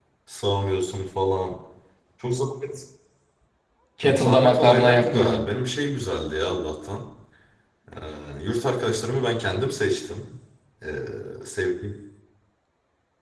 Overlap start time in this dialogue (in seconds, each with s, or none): 4.0 s